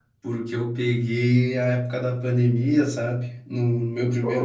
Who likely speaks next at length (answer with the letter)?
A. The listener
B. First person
B